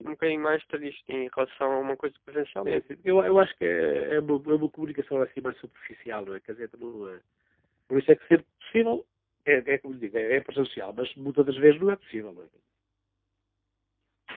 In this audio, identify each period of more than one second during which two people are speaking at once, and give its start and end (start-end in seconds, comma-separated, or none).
none